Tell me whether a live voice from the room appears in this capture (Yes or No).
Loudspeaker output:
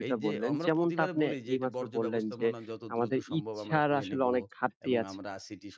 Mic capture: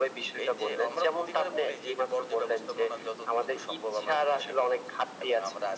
No